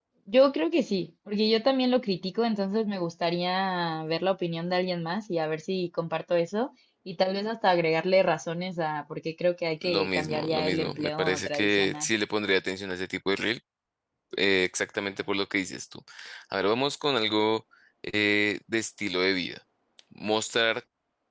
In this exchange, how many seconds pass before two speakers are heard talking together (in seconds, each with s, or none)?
9.8 s